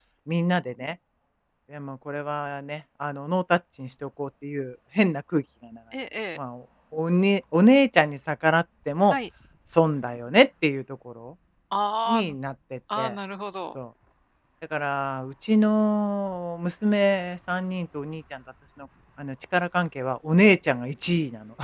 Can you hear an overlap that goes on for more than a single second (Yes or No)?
No